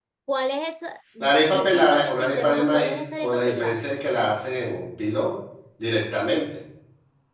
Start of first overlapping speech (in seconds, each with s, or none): 1.2 s